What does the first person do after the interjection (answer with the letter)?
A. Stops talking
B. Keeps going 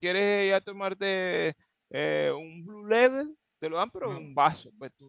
B